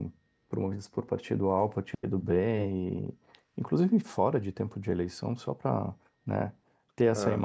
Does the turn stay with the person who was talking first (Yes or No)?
Yes